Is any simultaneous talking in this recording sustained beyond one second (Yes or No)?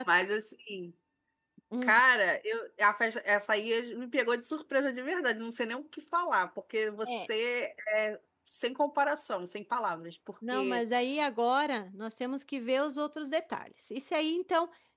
No